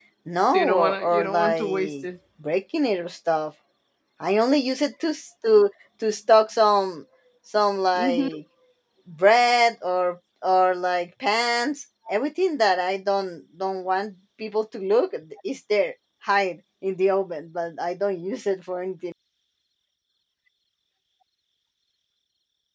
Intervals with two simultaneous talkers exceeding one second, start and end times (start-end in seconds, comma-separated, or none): 0.5-2.0